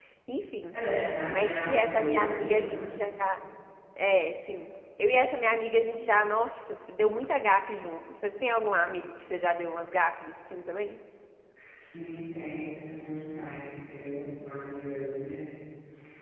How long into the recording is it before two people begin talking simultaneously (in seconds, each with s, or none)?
1.3 s